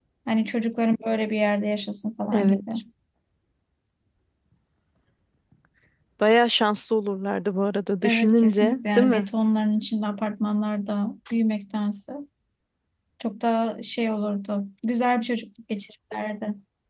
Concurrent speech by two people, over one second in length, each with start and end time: 8.0-9.3

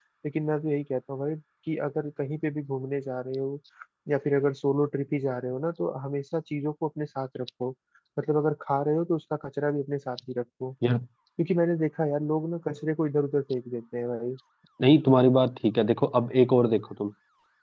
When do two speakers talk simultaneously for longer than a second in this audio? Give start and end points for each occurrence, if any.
none

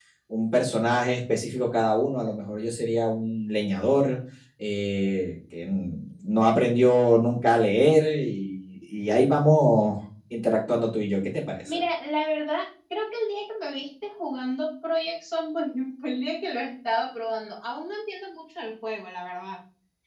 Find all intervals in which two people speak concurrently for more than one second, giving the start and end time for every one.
none

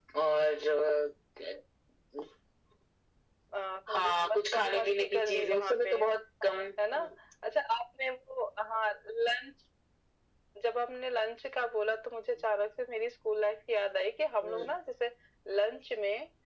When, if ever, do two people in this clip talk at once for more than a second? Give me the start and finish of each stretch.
3.9-5.9

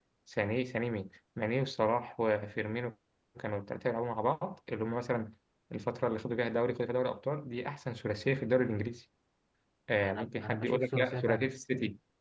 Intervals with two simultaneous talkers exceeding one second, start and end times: 10.0-11.5

